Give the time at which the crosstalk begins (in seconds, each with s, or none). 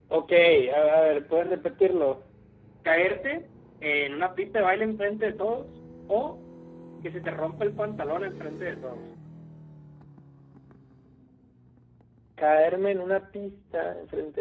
none